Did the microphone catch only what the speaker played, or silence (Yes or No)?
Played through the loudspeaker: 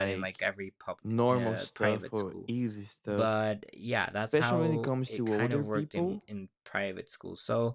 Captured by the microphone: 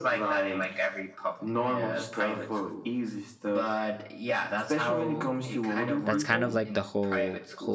No